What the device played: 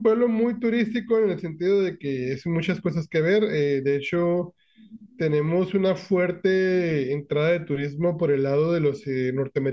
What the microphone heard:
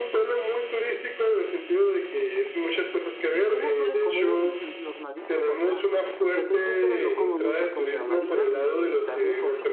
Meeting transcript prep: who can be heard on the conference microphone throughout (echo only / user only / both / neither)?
both